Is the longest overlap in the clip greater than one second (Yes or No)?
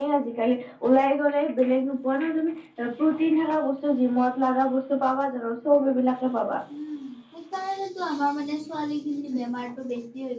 No